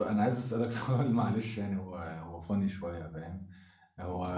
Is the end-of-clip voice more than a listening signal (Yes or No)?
No